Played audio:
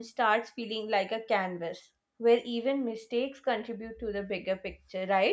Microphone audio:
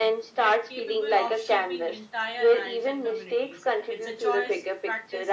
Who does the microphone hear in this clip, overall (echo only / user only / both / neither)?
both